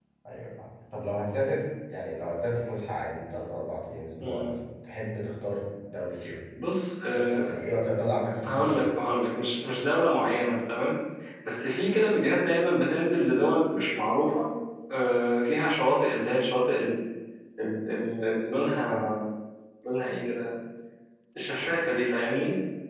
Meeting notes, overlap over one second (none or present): none